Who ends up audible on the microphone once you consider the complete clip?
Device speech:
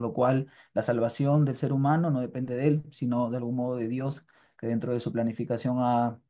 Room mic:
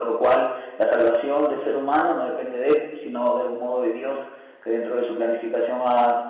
echo only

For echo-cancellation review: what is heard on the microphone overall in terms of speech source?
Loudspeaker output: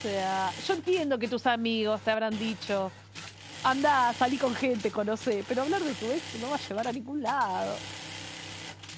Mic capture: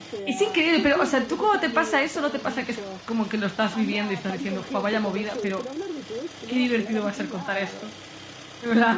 both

